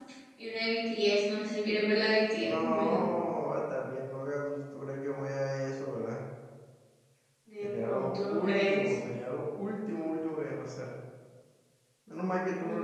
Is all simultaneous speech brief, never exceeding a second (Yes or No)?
No